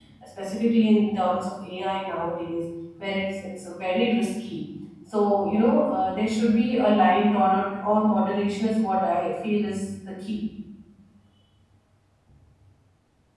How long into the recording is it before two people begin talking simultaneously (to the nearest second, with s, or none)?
none